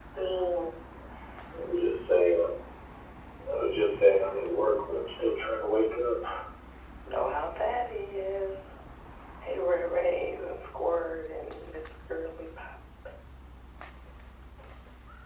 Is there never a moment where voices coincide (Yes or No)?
Yes